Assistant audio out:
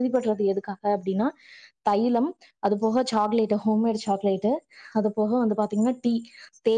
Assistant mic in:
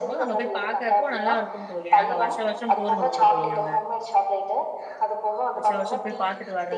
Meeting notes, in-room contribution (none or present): present